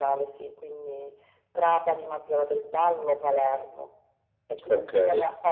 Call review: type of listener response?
listening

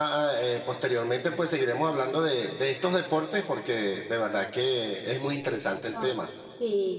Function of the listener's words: taking over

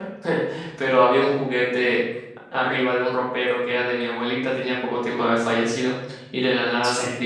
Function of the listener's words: listening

